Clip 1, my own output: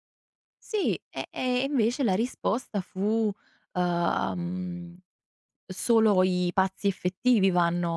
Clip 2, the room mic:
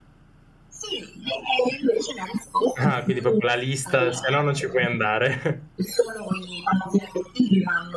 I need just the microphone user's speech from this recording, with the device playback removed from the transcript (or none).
Ah, quindi proprio la lista, se no non ci puoi andare.